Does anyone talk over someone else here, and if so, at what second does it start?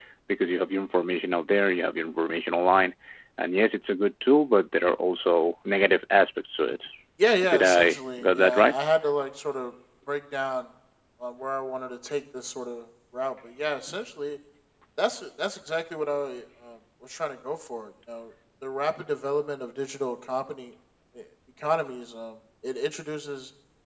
7 s

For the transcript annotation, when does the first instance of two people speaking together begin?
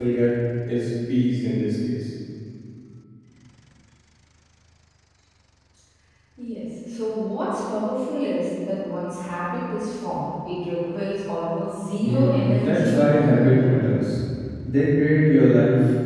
12 s

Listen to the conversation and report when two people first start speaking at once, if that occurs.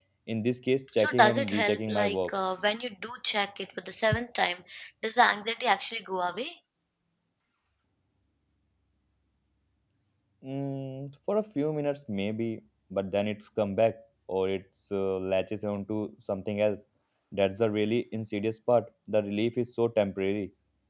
1 s

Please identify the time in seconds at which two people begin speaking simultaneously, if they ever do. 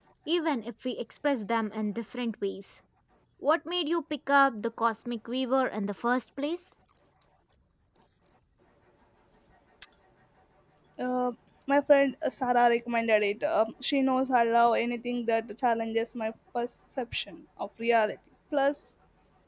none

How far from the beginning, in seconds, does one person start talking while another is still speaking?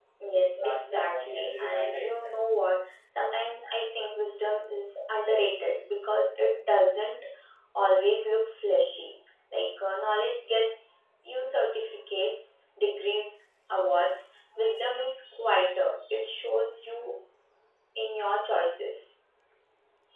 1 s

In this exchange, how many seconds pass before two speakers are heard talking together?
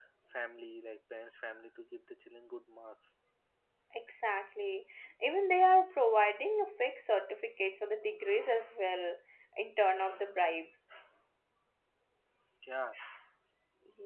none

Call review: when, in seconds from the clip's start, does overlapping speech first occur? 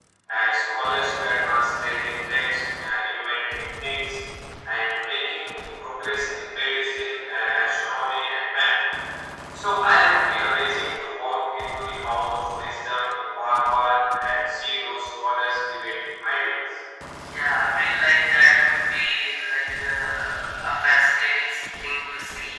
none

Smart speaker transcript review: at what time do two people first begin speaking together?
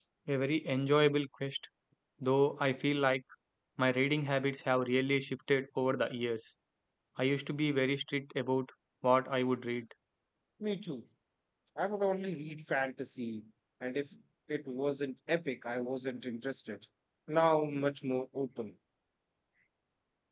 none

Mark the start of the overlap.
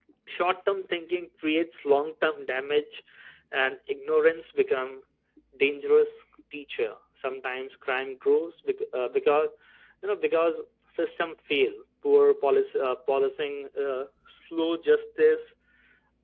none

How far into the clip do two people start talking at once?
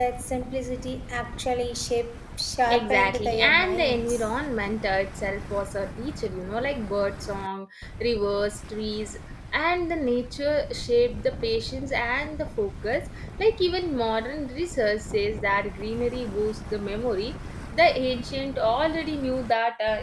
3 s

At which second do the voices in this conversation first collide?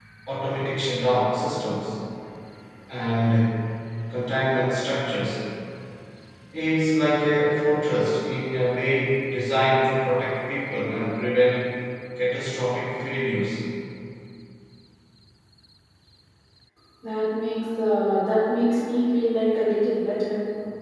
none

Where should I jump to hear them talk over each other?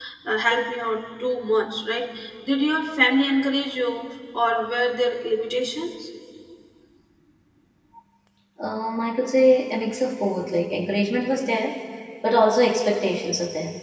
none

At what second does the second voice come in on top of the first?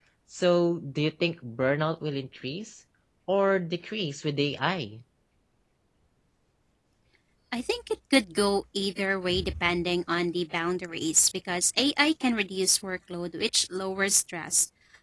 none

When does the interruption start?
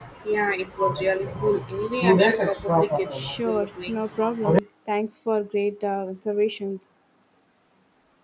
3 s

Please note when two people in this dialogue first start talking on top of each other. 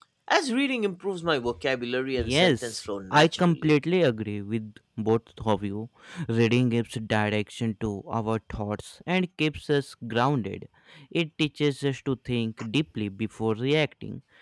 2 s

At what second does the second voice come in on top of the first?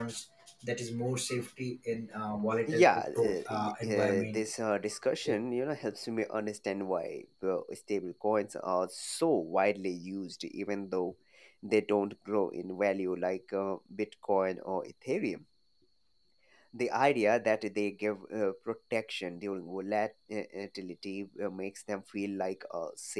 3 s

